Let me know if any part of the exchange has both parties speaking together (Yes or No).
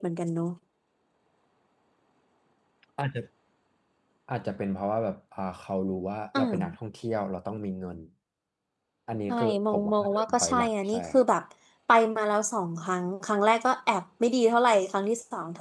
Yes